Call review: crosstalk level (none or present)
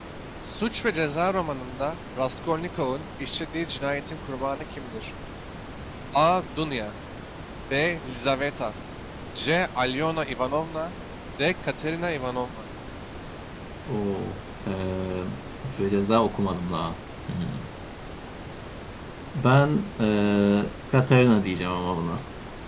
none